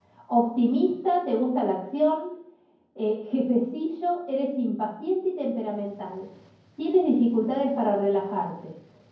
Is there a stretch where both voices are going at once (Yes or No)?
No